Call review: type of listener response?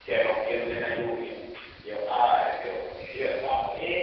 taking over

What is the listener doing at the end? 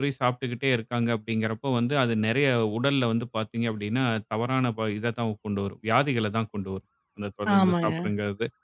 listening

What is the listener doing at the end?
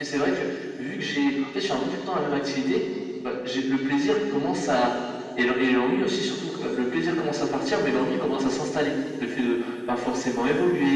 listening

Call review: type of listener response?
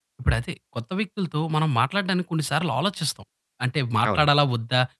listening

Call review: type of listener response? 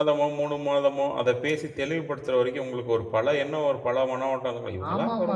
taking over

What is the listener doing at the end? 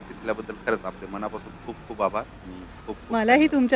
taking over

